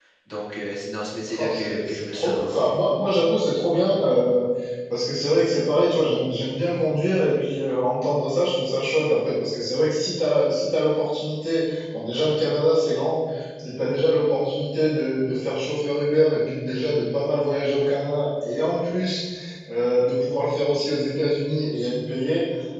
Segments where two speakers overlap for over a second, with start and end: 1.3-2.7

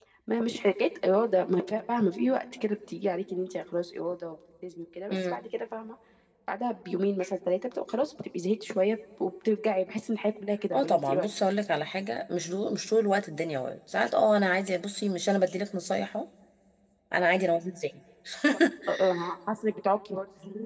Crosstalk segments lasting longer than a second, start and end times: none

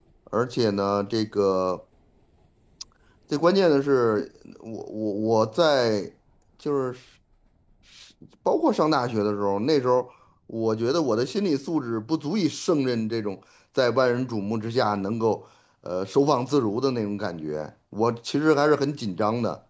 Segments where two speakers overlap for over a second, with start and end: none

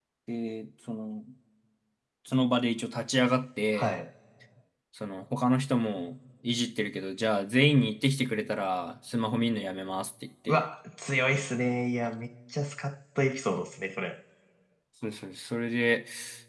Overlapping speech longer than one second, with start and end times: none

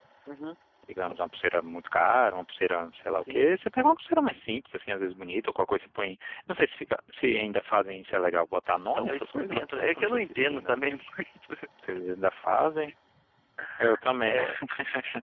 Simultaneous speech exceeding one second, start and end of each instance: 8.9-10.8

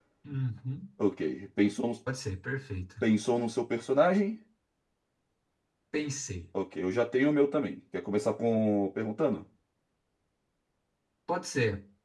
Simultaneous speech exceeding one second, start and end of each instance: none

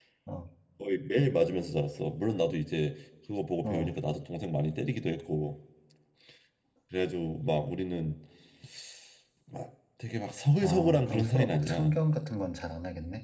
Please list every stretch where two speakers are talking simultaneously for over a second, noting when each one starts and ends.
10.6-12.0

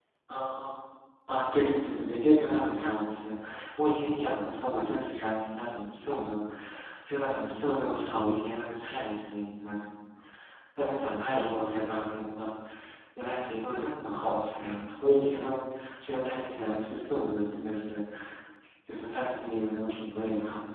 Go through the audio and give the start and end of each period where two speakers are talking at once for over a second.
none

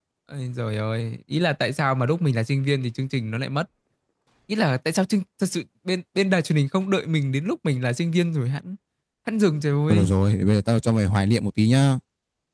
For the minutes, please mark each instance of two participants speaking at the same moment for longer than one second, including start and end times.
none

